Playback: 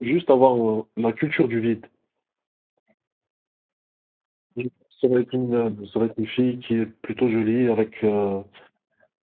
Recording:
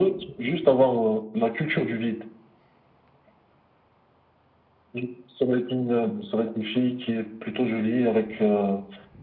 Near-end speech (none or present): none